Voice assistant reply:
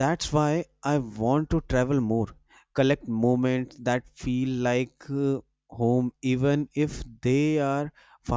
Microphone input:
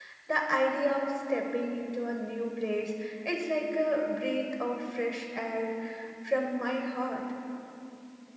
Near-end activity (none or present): present